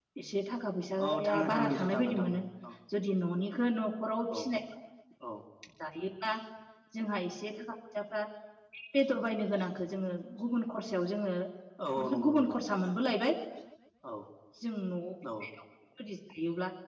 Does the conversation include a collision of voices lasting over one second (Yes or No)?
Yes